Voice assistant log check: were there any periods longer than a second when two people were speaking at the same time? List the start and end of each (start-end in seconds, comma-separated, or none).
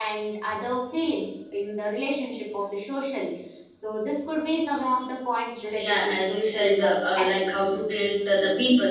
5.8-7.8